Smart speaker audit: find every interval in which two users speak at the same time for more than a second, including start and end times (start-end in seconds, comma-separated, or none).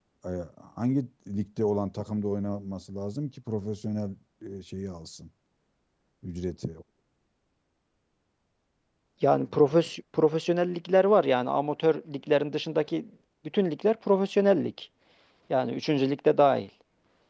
none